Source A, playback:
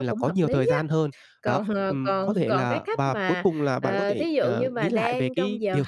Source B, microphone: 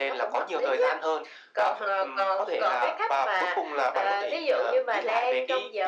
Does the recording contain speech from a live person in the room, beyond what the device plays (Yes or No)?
No